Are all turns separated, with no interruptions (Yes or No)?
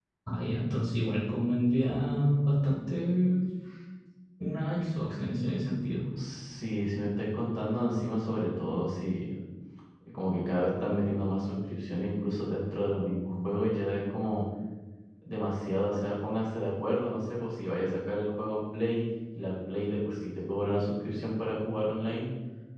Yes